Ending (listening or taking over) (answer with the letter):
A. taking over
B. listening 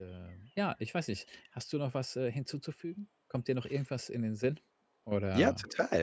A